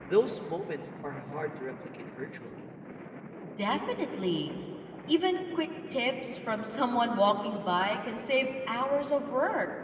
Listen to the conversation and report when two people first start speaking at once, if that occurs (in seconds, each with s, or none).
none